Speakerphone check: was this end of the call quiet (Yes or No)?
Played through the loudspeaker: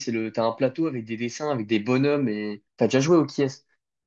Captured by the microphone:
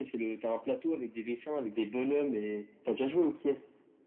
Yes